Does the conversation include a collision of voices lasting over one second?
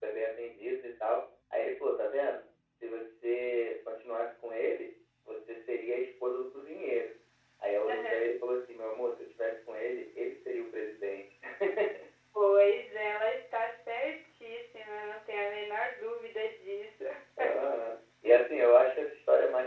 No

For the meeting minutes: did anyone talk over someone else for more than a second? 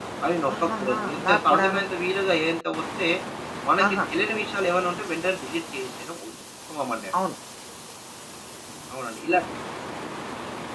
Yes, from 0.6 s

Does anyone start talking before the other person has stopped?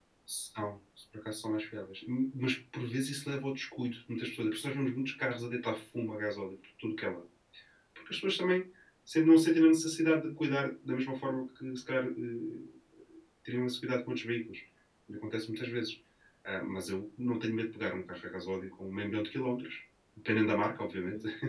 No

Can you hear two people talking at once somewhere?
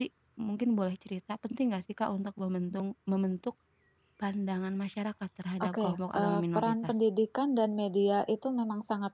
Yes, from 5.6 s

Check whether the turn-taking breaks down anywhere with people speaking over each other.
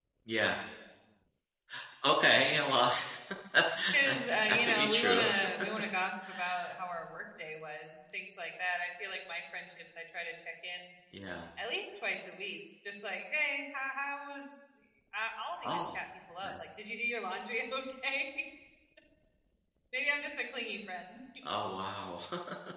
Yes, from 3.9 s

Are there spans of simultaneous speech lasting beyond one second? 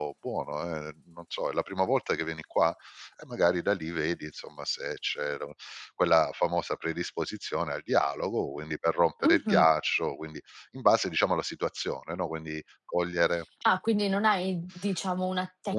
No

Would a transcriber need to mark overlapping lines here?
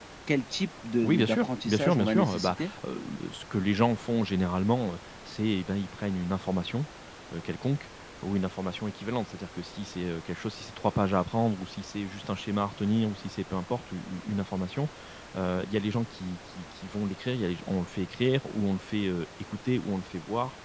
Yes, from 1.0 s

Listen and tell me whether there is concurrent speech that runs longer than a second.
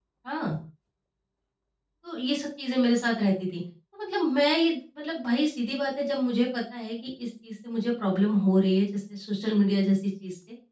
No

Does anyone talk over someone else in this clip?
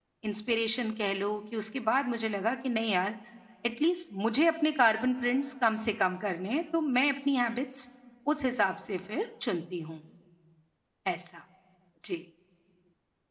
No

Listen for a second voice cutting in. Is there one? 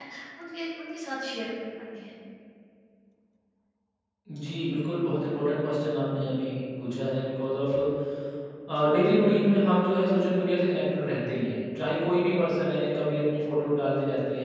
No

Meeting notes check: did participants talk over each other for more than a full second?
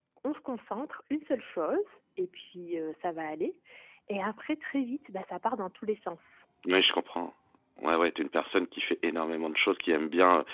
No

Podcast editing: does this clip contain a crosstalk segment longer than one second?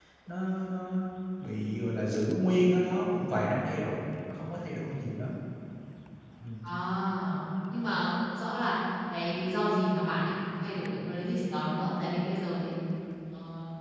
No

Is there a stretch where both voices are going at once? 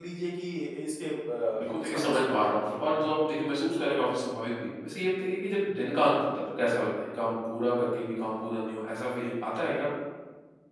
Yes, from 1.6 s

